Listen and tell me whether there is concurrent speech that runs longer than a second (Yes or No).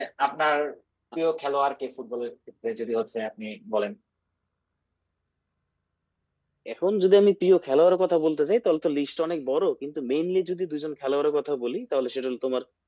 No